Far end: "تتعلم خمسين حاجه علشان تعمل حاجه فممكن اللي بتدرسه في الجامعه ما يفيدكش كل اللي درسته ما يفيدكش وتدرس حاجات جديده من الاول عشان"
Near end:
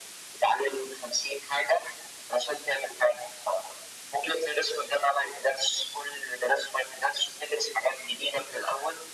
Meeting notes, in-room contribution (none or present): none